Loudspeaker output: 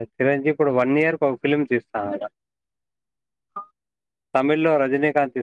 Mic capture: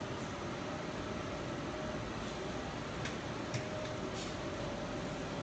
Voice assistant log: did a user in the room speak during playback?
No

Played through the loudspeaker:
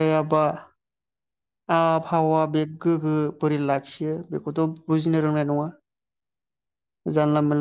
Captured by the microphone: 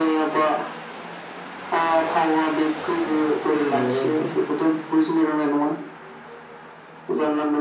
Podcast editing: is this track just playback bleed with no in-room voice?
No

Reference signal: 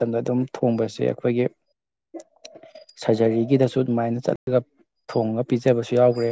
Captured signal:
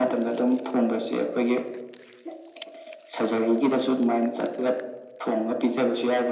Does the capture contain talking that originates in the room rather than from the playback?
No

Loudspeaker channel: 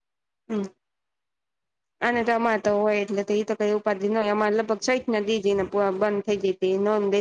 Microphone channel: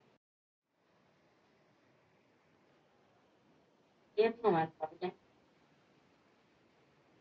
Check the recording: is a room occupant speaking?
Yes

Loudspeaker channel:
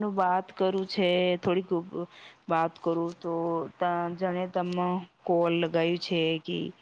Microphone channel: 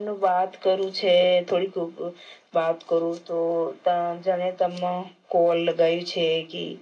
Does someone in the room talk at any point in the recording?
No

